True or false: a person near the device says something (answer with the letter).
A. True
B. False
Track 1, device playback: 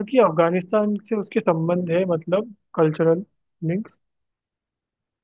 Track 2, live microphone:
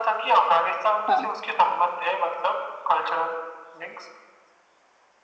A